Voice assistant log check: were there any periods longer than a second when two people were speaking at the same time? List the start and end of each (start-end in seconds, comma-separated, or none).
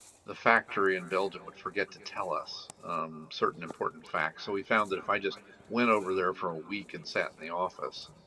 none